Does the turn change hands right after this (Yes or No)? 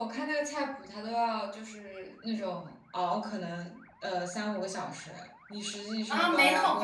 Yes